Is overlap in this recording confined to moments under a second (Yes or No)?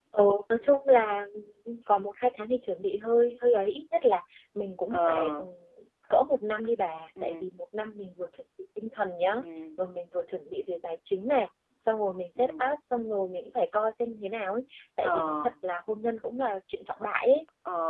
Yes